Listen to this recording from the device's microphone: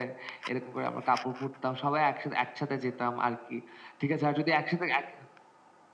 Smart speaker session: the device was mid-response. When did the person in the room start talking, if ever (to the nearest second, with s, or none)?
none